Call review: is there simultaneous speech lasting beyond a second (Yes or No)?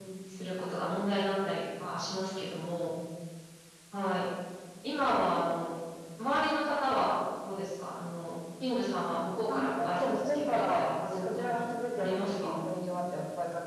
Yes